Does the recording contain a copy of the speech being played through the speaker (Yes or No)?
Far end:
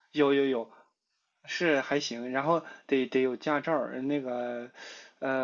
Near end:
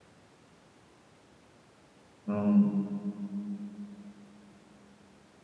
No